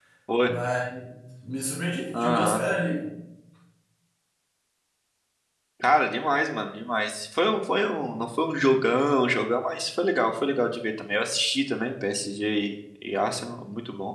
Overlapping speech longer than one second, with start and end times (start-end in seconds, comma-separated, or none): none